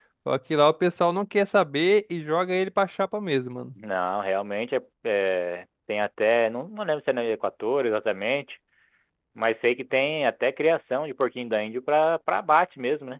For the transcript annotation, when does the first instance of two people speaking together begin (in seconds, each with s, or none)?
none